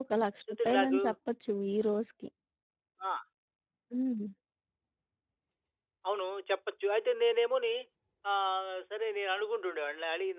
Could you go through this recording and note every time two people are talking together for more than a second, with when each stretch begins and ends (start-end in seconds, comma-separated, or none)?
none